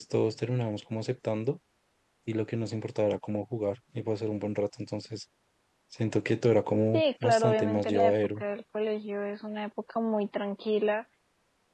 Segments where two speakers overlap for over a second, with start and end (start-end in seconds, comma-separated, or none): 6.9-8.4